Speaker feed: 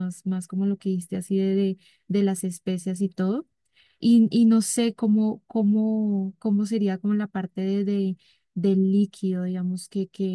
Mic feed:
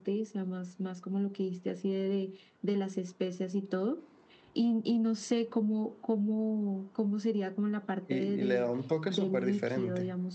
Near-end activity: present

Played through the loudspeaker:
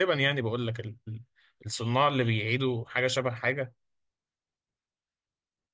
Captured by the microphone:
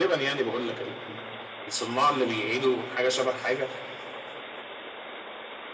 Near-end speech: none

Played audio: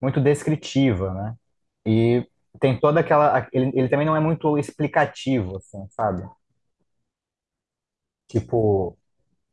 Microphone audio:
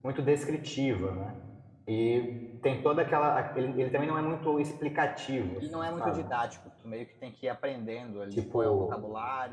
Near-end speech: present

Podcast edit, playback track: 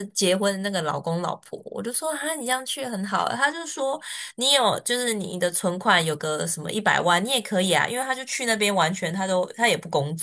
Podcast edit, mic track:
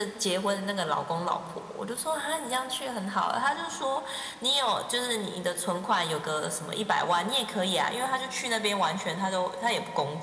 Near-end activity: none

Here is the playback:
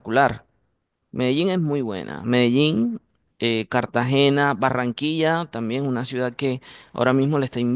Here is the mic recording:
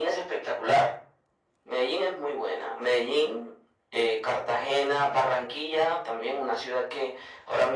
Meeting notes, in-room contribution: none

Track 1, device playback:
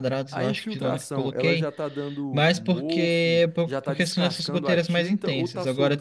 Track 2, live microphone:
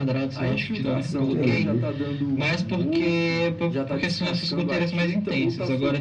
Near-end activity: present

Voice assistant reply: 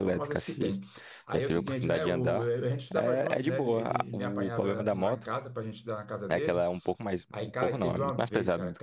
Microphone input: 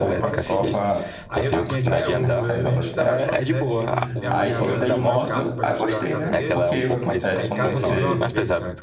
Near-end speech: present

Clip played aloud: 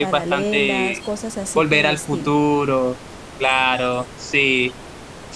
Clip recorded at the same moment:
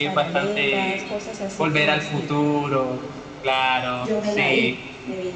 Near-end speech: present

